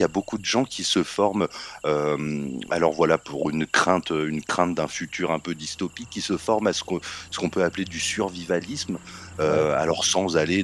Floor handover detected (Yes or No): No